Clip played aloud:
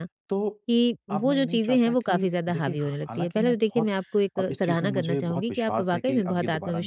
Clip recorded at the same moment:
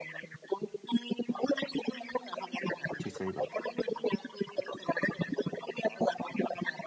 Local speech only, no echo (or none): जी, सही बात है।